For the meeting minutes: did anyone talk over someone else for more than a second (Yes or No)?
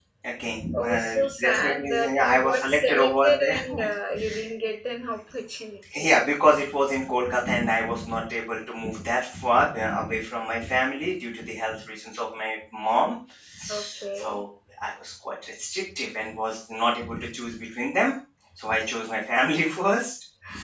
Yes